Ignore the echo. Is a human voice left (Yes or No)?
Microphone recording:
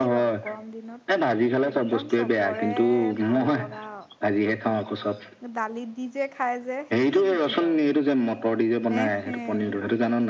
Yes